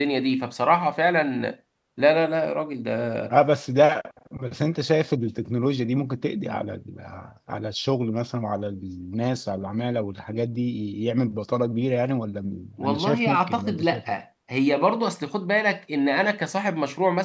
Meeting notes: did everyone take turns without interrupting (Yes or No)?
No